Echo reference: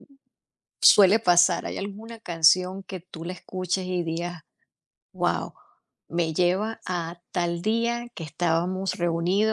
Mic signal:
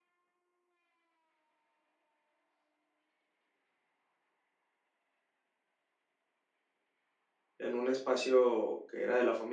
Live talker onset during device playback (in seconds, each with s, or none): 7.6 s